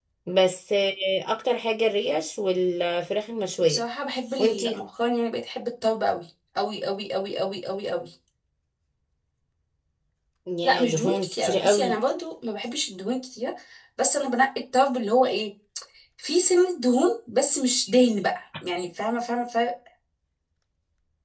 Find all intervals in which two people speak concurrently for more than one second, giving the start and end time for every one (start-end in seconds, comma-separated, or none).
10.6-12.0